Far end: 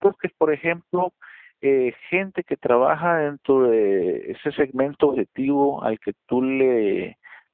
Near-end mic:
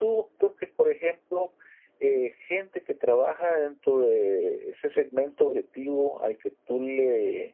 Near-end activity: none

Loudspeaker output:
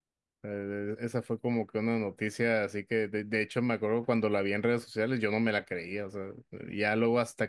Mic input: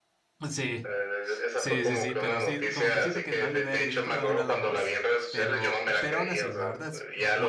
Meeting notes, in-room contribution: present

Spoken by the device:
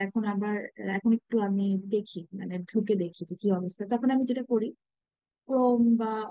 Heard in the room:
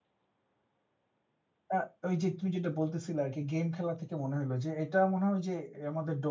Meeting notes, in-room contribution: present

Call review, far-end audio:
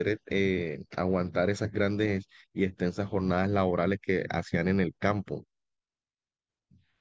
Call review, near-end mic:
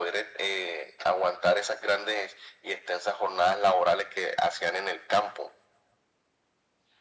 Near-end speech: none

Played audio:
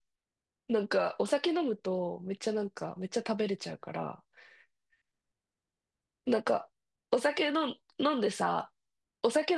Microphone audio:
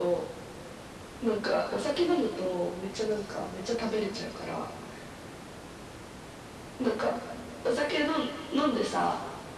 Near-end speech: none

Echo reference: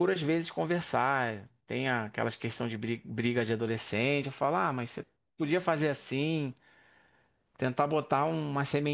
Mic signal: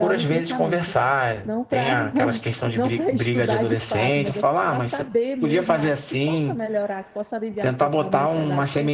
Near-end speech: present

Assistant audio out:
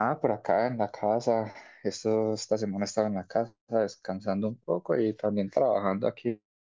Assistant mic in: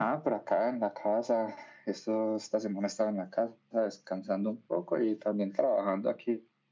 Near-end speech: none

